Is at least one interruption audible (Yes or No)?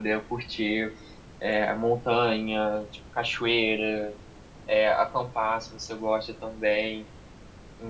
No